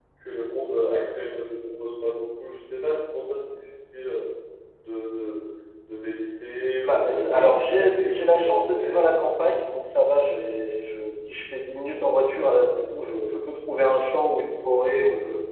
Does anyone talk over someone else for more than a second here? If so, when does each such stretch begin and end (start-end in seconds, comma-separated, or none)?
6.9-9.3